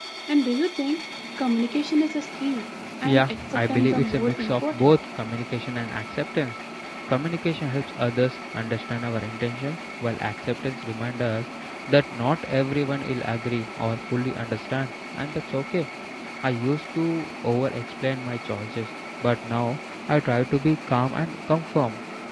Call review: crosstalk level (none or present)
present